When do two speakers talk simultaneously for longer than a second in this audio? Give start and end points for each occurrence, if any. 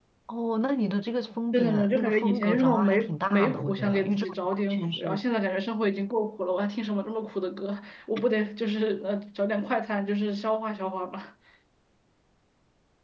1.5-5.2

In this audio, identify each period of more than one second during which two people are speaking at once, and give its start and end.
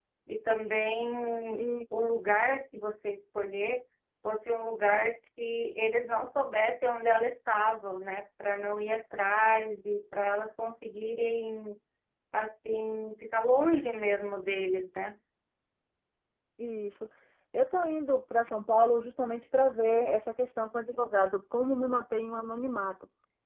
none

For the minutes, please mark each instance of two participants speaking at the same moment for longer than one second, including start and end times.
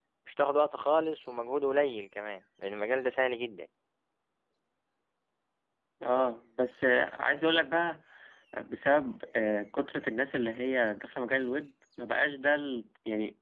none

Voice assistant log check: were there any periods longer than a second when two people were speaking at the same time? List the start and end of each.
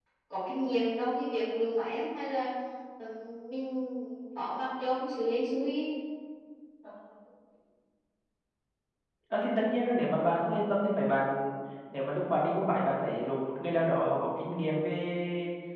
none

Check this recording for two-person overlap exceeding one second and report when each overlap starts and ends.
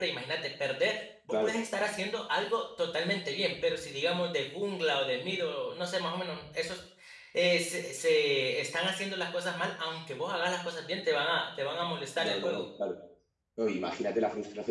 none

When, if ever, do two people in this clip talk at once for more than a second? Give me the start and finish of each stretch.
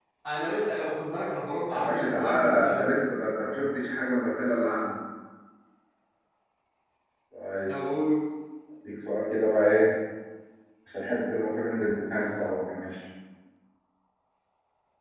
1.7-2.9

